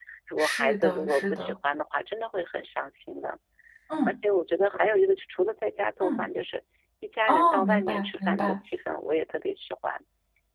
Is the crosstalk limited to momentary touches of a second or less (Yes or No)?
No